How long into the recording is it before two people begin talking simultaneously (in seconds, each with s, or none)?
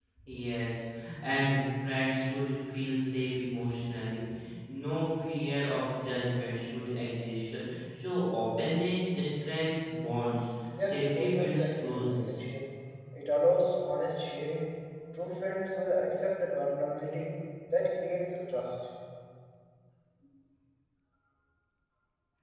10.7 s